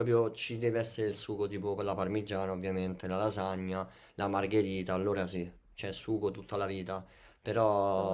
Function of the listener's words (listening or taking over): listening